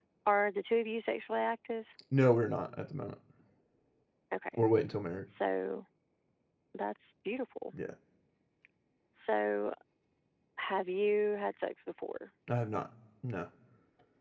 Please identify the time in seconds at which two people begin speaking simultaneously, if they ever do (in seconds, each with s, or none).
none